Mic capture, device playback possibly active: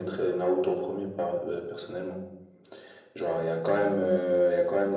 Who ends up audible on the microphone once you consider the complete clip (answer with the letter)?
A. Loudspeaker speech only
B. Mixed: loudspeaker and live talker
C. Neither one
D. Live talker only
A